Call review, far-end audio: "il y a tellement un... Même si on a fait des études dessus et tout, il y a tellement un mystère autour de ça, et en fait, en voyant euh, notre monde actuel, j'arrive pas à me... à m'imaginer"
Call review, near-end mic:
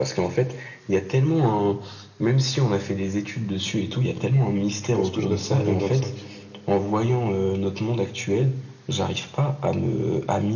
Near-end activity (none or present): present